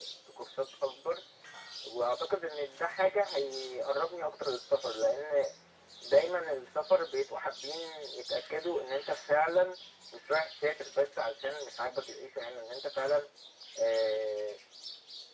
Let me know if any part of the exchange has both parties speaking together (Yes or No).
No